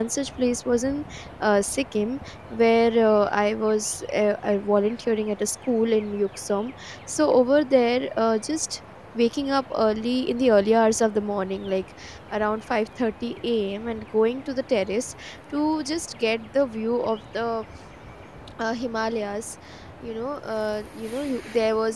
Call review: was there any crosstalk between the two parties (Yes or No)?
No